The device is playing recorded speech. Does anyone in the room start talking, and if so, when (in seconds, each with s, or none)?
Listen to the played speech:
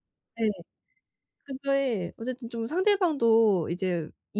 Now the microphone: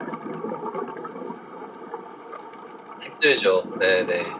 3.0 s